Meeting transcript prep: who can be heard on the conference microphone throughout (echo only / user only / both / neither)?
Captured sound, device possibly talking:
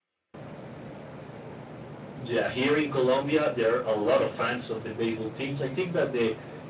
echo only